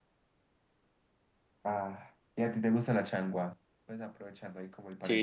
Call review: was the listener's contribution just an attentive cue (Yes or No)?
No